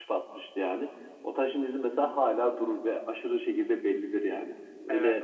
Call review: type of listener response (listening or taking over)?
taking over